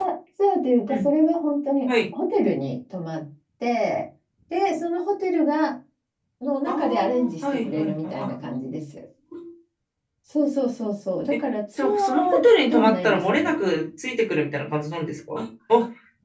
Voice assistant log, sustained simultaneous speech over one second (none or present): present